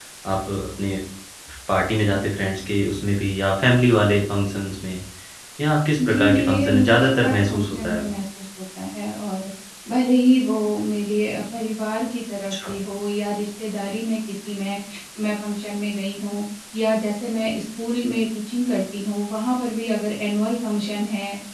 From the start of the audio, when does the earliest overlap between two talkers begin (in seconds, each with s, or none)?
6.1 s